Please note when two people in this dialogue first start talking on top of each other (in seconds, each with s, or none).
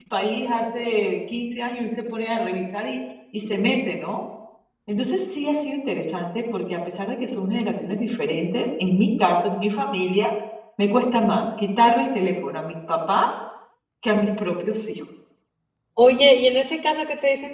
none